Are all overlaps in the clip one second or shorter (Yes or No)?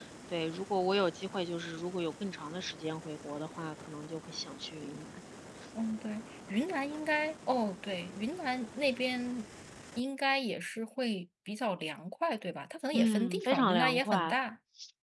No